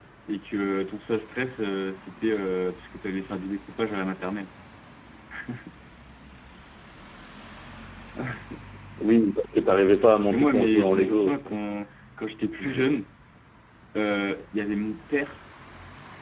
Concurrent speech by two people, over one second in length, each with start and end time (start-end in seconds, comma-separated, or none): 10.3-11.5